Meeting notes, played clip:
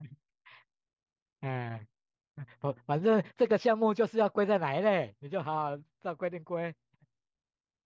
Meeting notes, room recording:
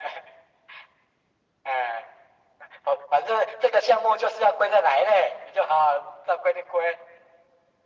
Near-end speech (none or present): none